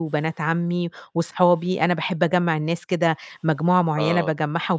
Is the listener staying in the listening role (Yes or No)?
Yes